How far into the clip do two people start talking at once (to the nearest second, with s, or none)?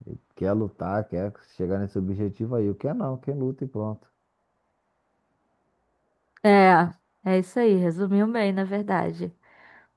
none